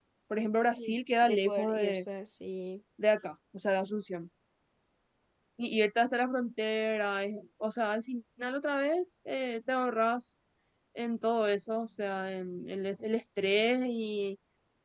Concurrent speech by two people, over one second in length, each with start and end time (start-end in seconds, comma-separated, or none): 0.8-2.0